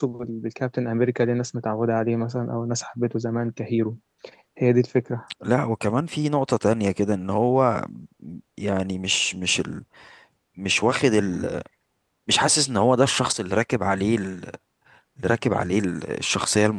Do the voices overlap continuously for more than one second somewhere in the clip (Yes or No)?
No